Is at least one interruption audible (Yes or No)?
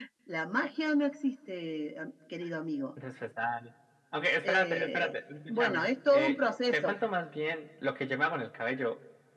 Yes